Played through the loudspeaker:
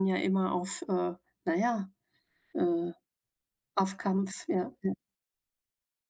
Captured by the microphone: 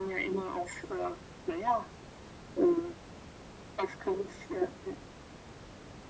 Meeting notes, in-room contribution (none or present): none